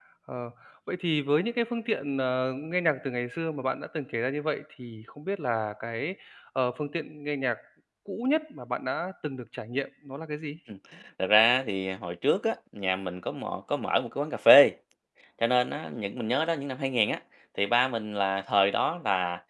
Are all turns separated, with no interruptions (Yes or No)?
Yes